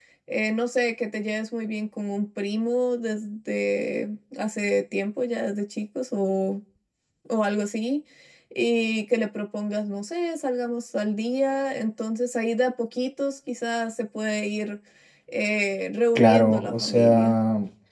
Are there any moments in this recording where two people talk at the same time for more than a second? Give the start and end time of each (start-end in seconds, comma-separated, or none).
16.1-17.4